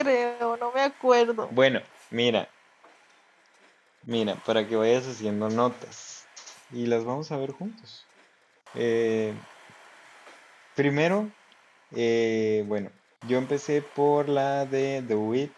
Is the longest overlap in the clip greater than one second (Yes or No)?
No